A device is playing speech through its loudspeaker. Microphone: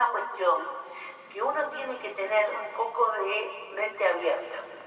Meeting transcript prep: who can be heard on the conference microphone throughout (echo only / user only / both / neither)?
echo only